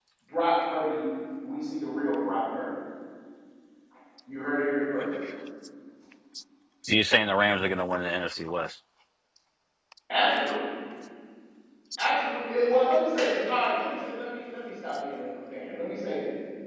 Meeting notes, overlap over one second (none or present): none